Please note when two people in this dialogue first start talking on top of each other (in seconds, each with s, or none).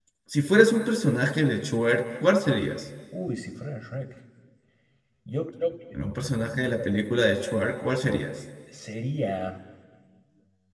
none